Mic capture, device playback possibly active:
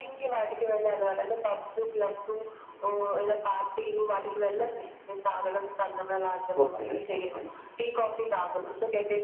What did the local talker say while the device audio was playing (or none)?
ఓకే. ఓకే.